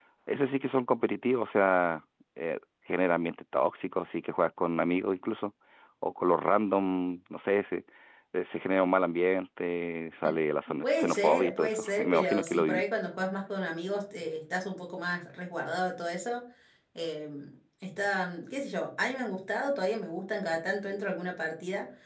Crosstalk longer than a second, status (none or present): present